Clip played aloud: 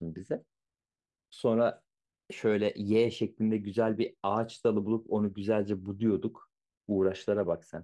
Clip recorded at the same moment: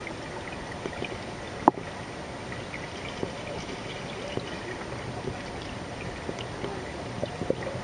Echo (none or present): none